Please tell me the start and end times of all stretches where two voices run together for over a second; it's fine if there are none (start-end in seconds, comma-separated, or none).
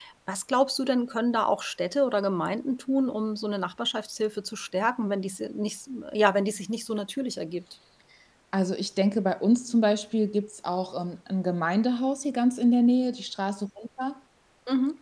none